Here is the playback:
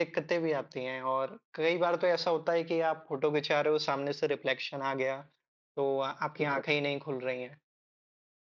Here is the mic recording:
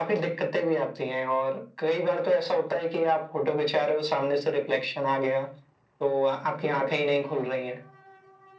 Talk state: echo only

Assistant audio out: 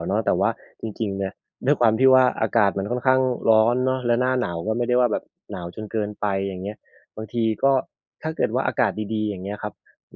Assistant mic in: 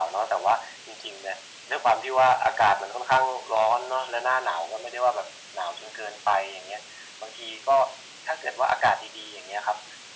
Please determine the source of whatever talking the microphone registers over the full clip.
echo only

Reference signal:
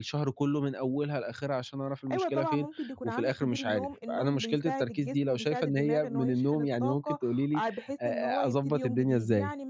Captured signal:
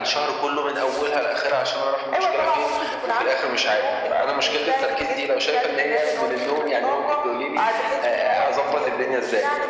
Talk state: echo only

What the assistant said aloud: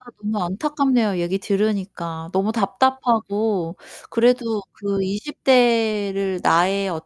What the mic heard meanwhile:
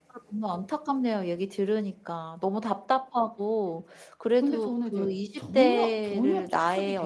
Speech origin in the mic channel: both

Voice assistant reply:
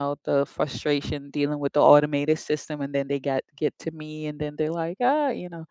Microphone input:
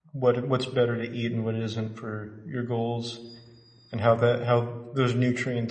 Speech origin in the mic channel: user only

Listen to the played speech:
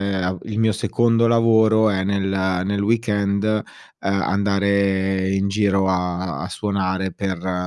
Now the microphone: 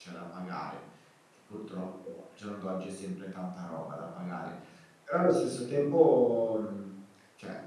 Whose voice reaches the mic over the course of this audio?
user only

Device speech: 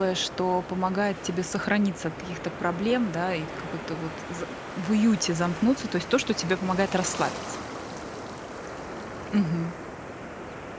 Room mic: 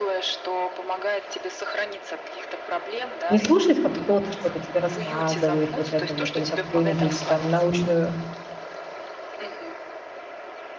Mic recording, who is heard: both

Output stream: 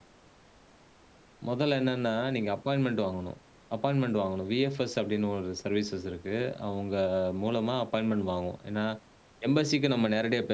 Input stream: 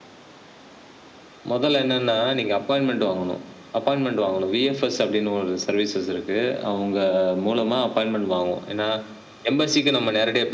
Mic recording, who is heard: echo only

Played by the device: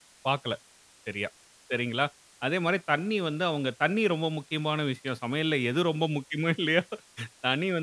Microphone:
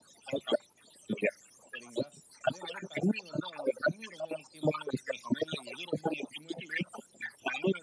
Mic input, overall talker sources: echo only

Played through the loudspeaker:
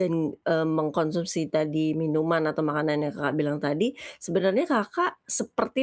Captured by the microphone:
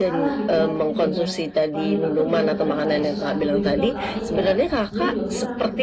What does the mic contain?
both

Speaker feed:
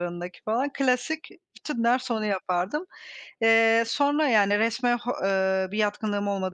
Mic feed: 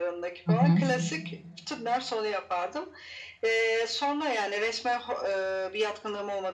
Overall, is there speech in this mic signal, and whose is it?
both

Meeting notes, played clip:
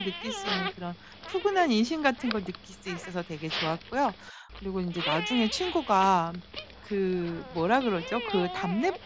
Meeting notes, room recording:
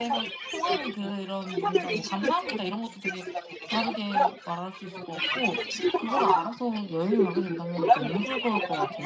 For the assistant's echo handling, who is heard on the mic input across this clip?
both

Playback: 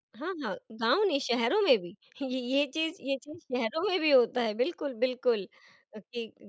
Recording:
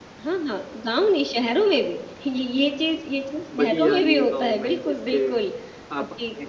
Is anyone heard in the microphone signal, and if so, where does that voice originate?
both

